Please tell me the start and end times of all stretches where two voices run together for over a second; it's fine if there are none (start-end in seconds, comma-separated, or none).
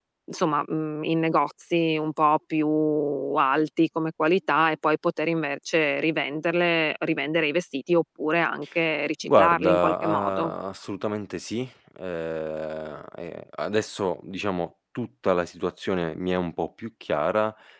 9.2-10.5